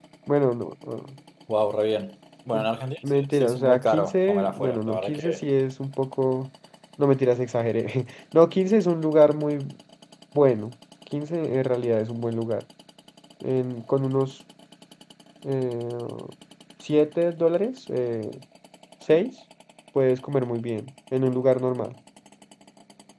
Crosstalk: present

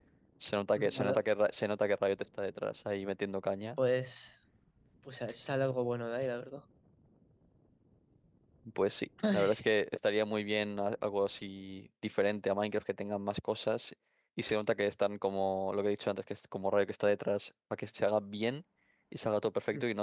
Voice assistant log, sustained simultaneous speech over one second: none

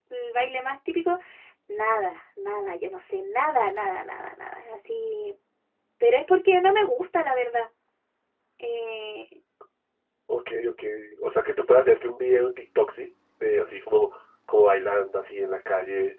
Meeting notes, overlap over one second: none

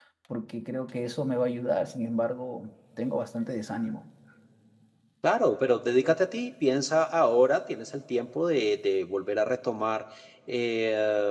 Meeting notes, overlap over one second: none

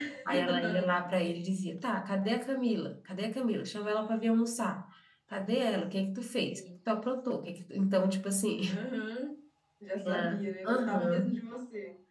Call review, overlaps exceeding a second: present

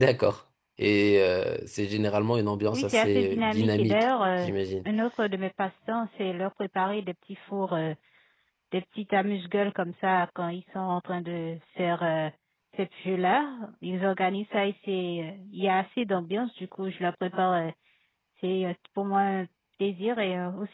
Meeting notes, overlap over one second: present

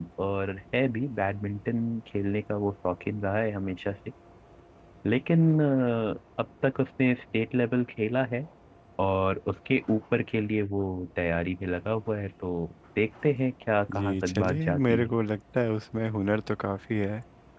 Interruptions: present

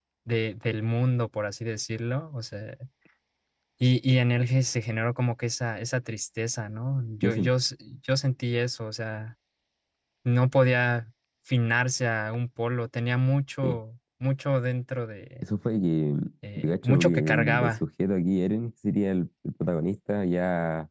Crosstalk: present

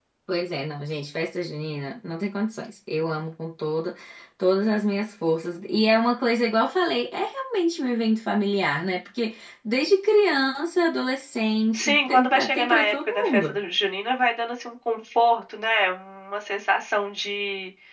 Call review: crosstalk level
present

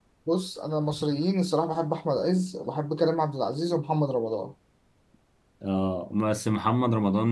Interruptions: none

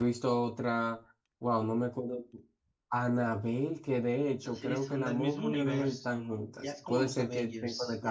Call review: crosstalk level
present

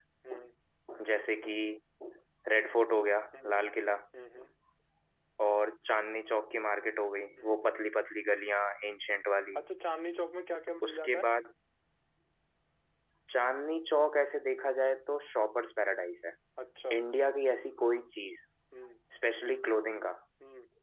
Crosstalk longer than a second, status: none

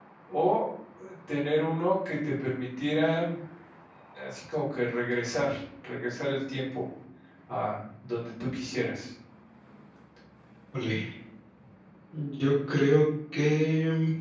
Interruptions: none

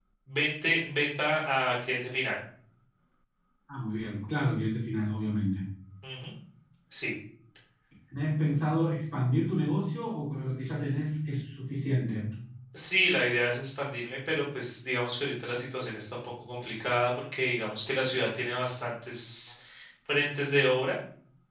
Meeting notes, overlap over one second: none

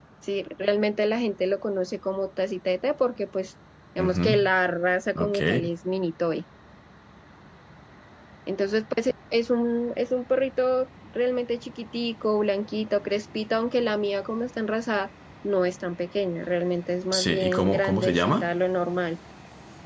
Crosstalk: present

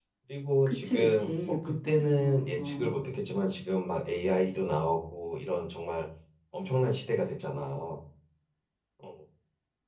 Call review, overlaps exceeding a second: present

